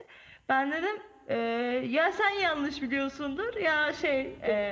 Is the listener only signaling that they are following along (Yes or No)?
No